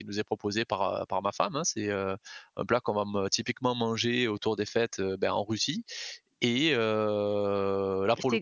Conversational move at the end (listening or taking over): taking over